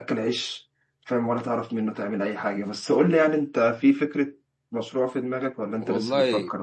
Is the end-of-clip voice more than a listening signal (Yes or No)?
Yes